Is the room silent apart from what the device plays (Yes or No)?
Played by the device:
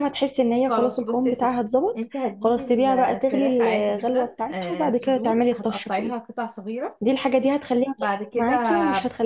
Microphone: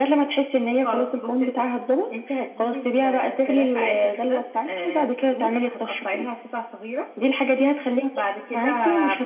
Yes